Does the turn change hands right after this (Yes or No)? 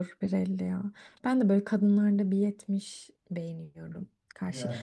No